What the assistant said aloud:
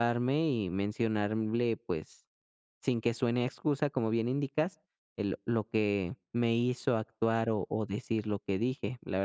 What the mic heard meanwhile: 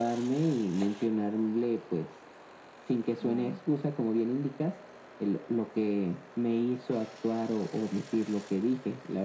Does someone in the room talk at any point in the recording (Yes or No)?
Yes